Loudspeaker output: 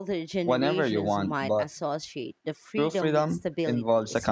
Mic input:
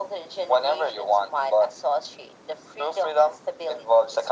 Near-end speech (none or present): none